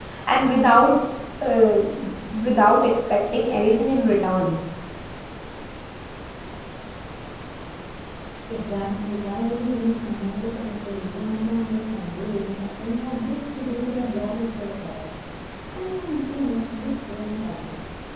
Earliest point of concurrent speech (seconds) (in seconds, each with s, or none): none